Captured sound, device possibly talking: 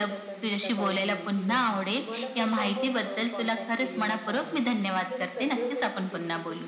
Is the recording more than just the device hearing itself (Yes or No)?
Yes